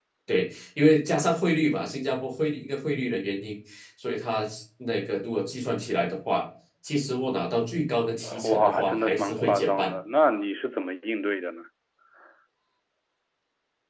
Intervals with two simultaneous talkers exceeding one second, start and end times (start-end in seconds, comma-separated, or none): 8.4-9.9